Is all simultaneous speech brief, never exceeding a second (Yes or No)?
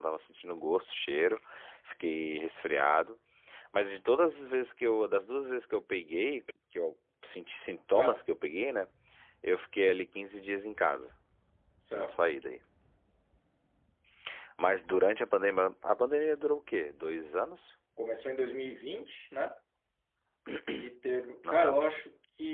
Yes